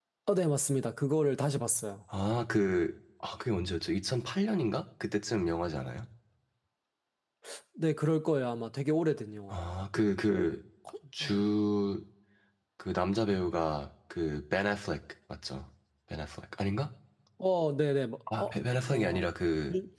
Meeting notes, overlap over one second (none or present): none